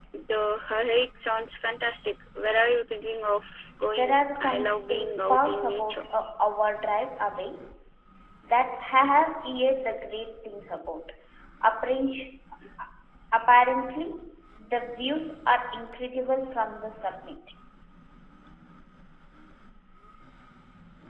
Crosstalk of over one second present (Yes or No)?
Yes